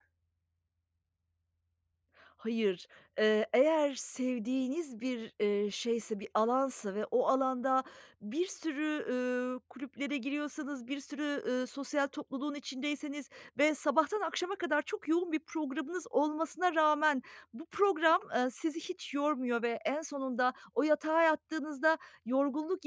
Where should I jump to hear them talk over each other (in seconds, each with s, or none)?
none